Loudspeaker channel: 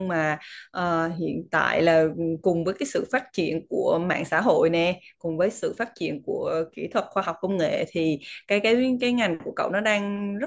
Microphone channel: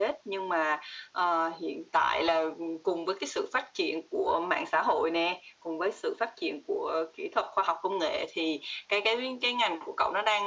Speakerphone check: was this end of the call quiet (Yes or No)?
Yes